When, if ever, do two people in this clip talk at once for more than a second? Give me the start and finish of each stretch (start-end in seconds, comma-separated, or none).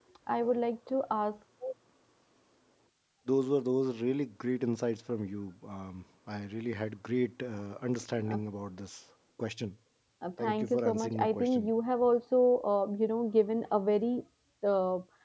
10.4-11.7